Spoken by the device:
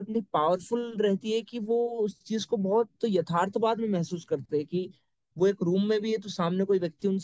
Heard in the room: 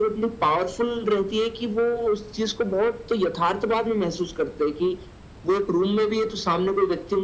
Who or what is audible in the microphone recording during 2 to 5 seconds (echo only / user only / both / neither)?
echo only